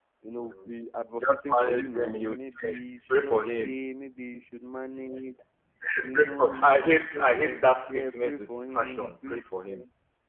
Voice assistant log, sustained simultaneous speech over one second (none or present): present